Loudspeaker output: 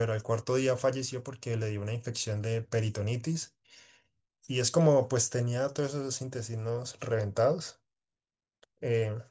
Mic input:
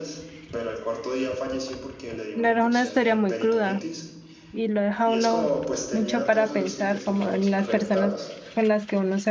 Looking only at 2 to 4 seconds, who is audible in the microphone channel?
both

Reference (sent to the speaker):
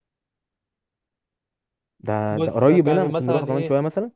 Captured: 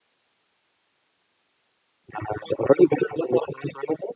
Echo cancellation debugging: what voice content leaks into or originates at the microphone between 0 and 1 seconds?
neither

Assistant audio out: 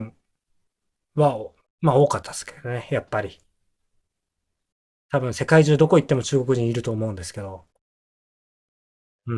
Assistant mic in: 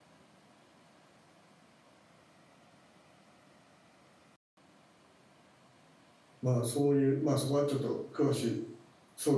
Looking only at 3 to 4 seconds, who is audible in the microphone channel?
neither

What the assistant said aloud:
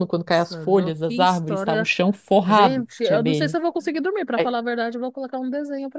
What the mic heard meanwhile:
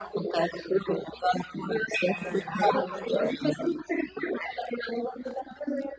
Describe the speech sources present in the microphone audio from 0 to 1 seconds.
echo only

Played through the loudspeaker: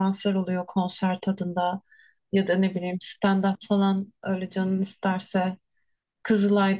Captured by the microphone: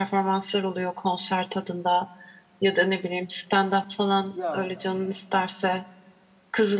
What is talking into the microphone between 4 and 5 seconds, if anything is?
both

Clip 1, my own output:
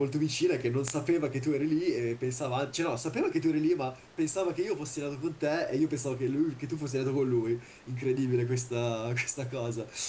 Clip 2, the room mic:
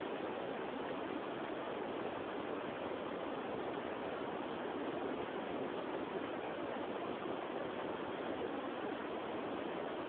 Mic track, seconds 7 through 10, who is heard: neither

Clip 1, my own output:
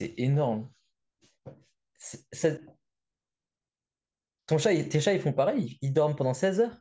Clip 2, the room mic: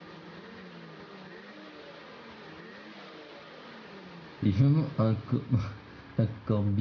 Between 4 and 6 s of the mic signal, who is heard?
user only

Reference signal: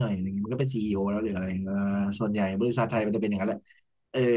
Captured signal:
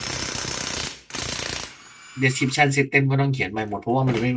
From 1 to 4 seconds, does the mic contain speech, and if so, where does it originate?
user only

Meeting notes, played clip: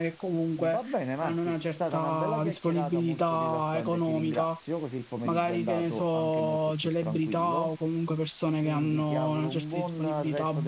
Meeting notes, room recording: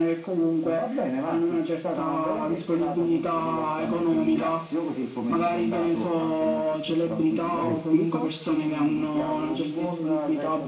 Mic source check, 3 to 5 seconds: echo only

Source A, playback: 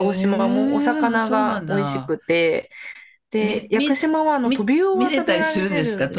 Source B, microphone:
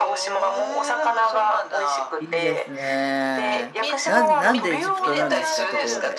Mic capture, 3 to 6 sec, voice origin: both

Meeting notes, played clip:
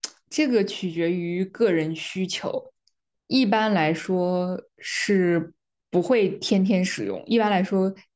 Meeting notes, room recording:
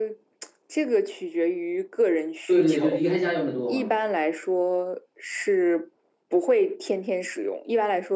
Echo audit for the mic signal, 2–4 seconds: both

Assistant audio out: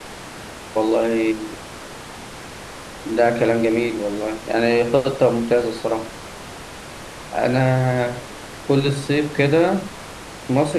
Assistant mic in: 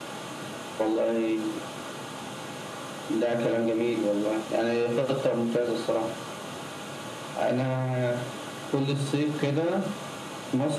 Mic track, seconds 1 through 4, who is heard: echo only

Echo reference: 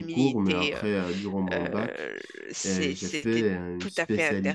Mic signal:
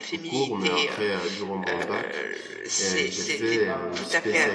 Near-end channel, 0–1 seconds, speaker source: echo only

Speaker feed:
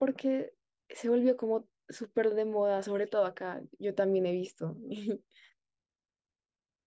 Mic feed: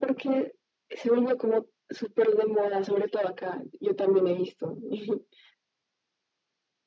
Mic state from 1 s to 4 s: echo only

